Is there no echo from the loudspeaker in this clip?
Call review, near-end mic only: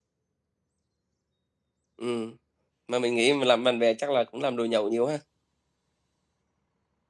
Yes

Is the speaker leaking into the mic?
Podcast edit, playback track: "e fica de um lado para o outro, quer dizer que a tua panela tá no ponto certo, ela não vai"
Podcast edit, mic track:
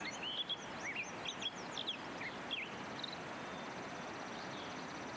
No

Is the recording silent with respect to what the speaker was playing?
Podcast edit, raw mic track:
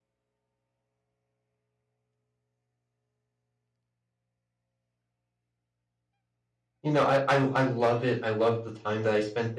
Yes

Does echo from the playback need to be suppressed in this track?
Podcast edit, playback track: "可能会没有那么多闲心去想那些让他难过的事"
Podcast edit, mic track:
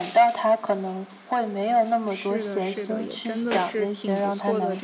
Yes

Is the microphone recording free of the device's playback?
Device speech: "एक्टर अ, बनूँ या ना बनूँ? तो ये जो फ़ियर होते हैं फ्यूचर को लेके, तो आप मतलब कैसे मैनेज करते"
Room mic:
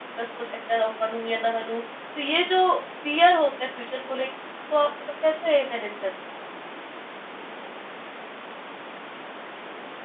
No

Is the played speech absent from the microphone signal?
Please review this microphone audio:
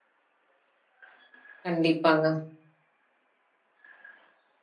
Yes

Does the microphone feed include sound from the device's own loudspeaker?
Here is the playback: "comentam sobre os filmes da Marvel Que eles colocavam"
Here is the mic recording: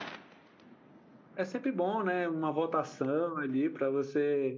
No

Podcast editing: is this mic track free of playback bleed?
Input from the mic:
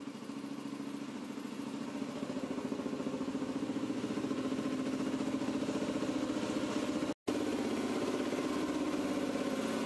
Yes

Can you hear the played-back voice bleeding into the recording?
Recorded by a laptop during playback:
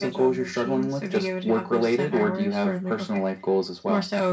Yes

